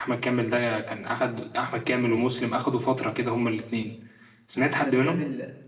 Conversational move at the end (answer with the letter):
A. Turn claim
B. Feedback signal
A